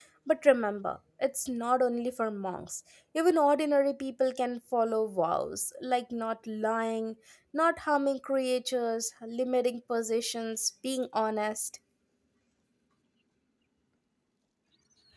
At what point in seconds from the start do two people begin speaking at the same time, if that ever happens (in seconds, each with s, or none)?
none